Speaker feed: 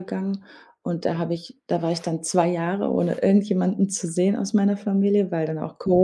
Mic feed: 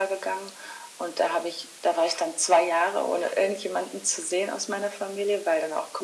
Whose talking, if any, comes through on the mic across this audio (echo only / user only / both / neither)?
echo only